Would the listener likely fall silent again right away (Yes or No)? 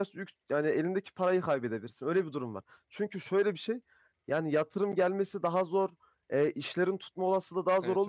Yes